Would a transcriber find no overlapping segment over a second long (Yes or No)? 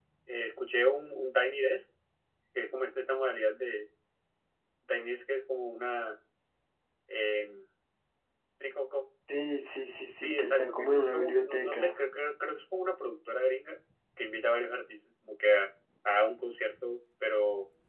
No